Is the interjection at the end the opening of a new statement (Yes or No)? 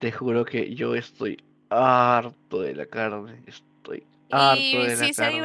Yes